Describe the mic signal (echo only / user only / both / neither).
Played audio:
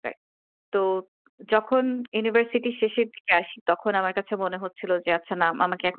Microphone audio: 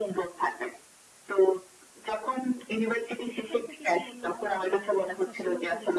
both